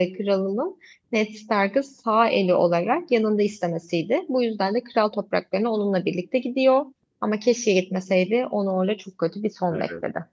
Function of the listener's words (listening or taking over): taking over